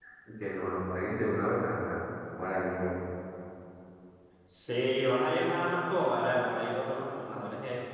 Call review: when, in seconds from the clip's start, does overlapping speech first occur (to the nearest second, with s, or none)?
none